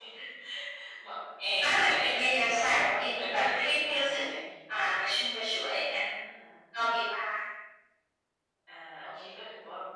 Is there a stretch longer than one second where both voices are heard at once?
Yes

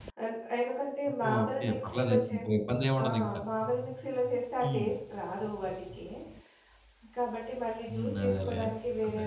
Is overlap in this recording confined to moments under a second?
No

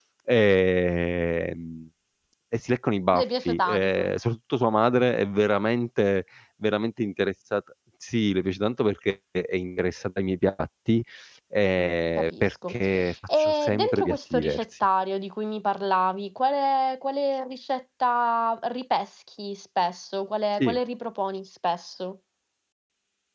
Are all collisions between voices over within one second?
No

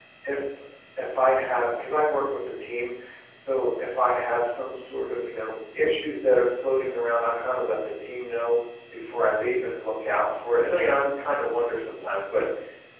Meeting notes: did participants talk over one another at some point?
No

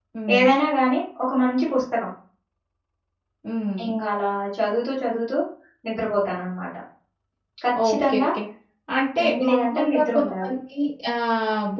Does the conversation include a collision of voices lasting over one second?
Yes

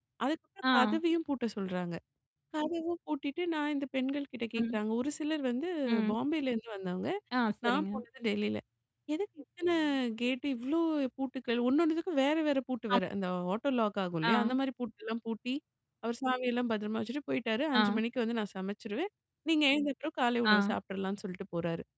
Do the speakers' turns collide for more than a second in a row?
No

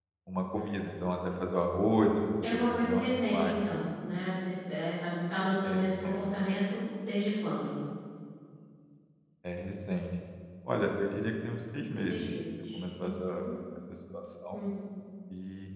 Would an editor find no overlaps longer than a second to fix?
No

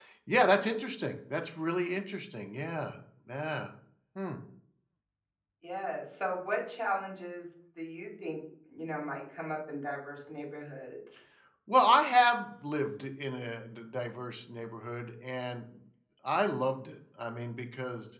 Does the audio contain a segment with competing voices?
No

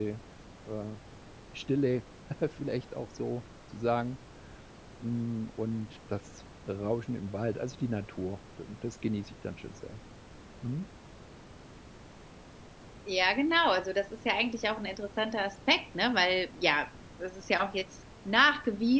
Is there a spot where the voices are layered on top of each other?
No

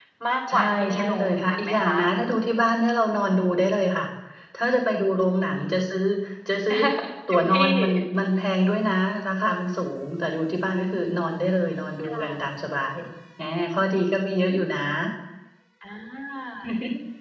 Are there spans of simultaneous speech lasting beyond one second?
Yes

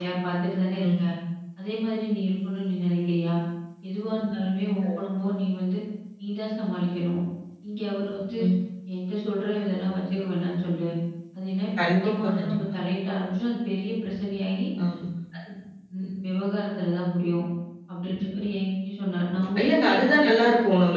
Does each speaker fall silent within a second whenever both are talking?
No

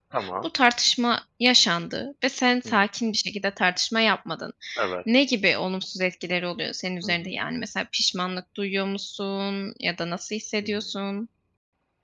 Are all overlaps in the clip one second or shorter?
Yes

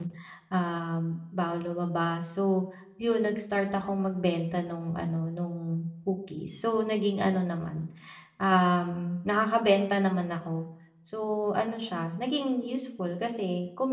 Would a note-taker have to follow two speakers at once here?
No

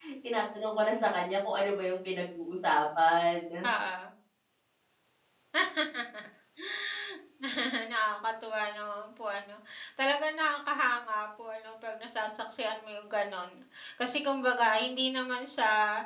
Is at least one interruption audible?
No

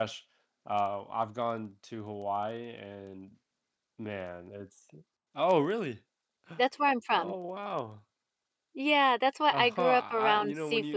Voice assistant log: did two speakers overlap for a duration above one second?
Yes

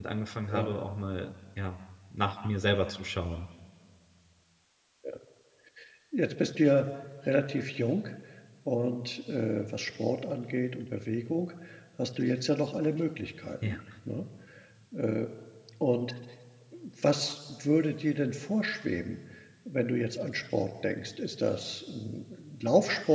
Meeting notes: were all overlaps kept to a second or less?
Yes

